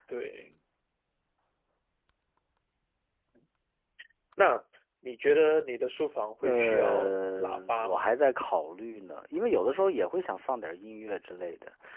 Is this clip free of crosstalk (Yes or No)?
No